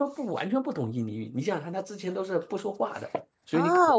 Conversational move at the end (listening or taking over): taking over